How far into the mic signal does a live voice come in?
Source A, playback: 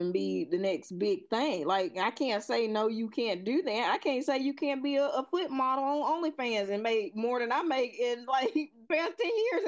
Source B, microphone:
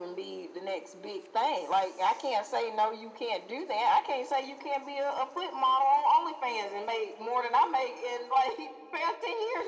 none

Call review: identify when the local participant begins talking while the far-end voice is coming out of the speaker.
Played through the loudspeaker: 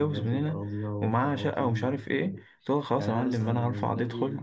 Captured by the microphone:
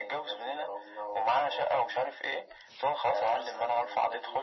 none

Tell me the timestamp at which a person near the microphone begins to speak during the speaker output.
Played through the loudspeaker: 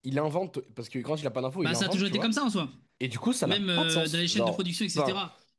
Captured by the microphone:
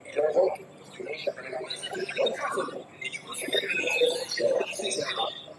none

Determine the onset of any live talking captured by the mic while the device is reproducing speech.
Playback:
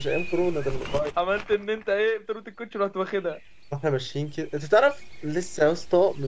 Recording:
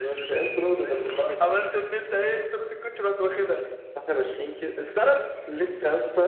none

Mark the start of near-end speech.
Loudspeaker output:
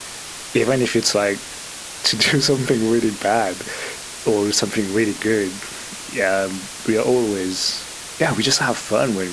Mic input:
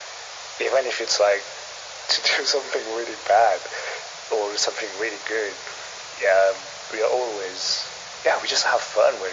none

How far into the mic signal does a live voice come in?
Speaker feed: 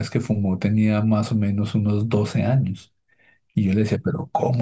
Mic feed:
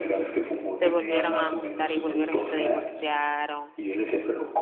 0.8 s

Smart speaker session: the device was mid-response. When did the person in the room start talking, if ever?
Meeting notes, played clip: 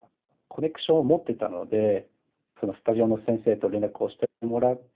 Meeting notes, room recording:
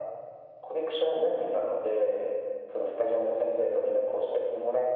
none

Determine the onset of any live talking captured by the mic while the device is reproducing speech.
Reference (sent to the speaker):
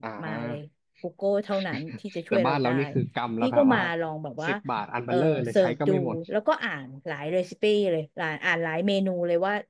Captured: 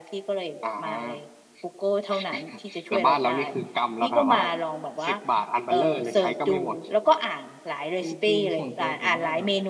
8.0 s

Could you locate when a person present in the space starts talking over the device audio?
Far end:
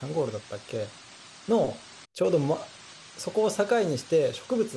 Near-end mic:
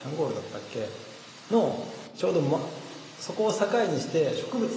none

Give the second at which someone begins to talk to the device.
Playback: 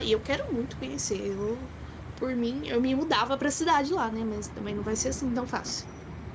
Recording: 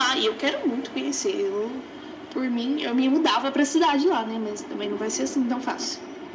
none

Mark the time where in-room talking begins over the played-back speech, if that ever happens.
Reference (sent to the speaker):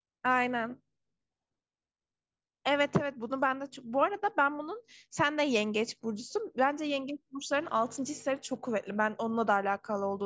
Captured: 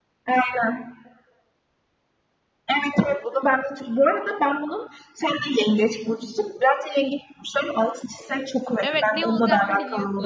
8.8 s

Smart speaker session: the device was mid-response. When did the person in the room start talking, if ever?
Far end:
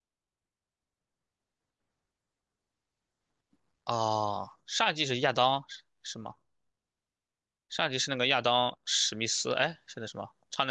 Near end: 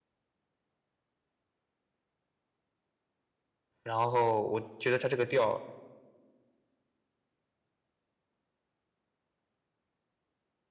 3.8 s

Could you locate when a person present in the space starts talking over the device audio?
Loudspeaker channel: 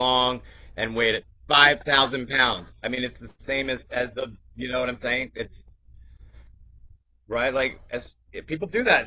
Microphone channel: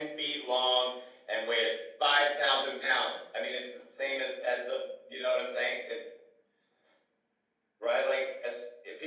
none

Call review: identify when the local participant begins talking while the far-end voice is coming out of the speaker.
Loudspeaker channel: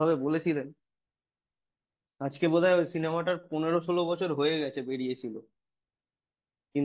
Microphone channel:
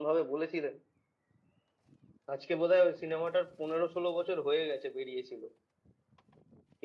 none

